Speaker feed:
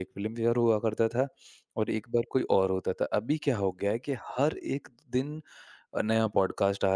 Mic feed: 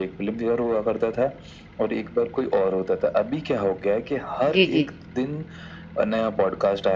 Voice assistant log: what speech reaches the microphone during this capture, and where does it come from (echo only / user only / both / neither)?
both